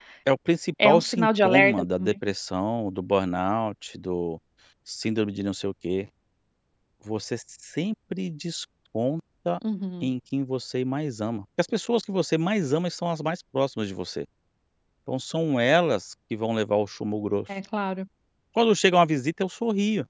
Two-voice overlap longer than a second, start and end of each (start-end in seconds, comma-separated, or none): 0.8-2.1